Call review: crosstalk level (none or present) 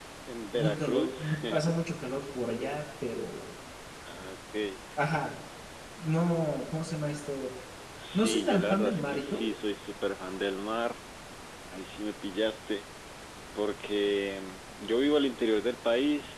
present